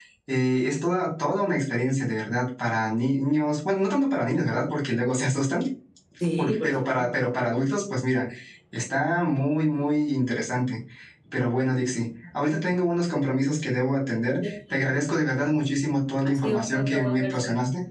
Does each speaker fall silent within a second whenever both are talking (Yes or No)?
No